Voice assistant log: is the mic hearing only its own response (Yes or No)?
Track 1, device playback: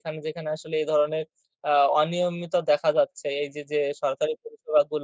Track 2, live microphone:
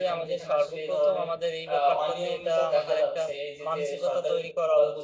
No